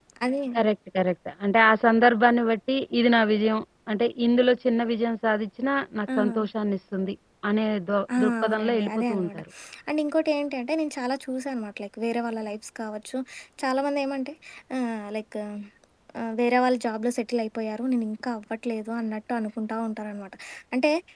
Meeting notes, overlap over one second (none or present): present